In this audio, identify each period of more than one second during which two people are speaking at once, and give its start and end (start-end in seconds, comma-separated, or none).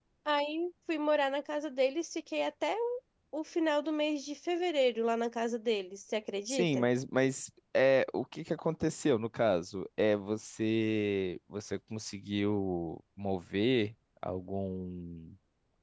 none